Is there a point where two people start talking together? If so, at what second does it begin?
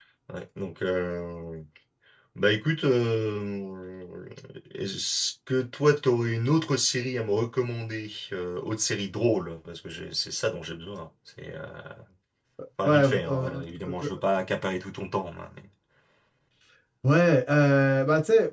13 s

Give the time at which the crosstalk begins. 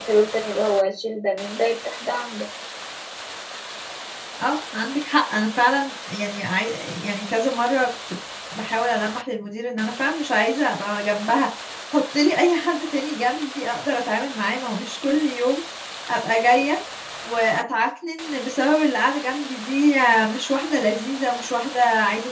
none

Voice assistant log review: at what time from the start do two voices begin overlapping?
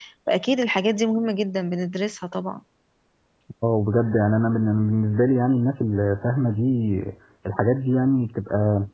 none

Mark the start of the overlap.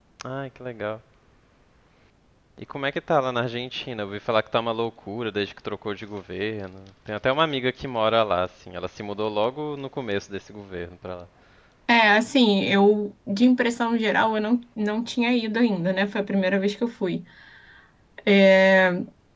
none

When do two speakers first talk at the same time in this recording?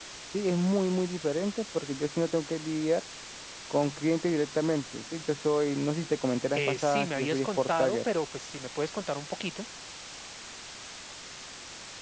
7 s

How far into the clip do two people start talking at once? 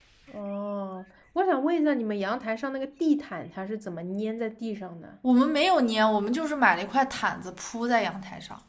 none

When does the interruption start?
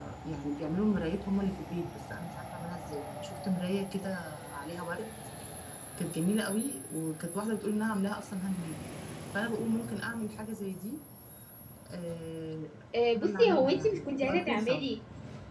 13 s

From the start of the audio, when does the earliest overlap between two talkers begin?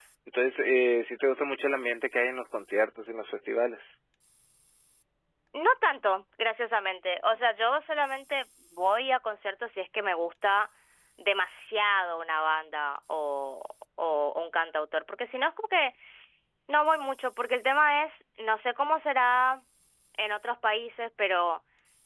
none

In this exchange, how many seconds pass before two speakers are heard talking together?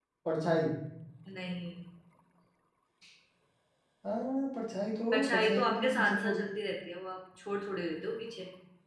5 s

